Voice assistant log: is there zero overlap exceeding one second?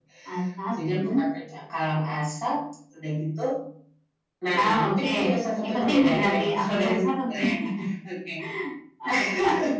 No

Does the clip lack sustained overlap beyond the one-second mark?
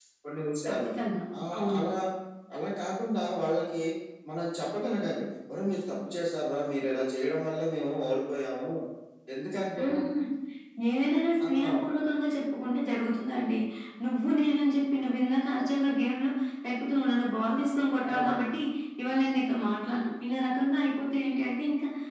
Yes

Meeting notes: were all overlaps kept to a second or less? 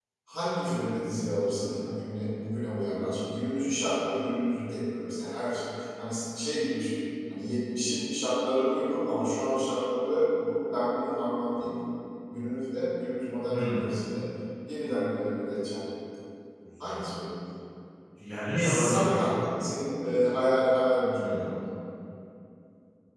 Yes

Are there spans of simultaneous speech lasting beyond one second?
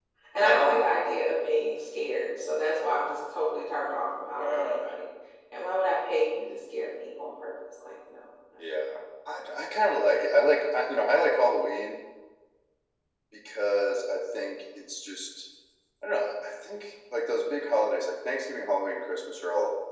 No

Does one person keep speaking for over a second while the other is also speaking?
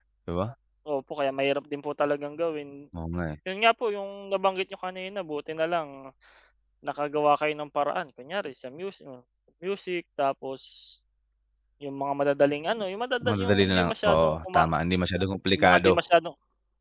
Yes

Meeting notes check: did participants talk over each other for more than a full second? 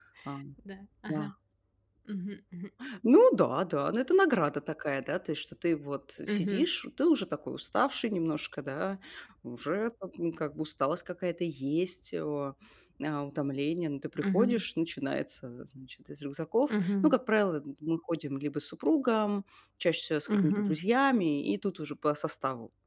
No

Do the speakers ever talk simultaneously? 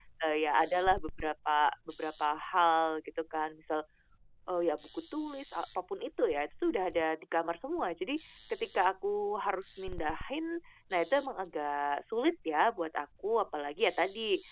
No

